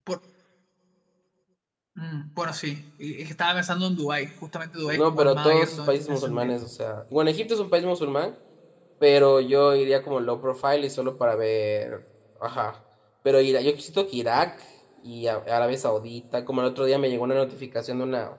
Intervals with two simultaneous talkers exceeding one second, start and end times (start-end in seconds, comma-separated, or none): 4.9-6.5